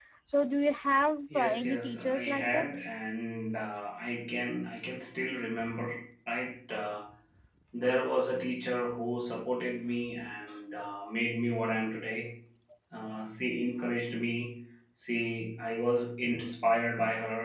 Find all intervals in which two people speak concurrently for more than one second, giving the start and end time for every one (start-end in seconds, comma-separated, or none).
1.3-2.7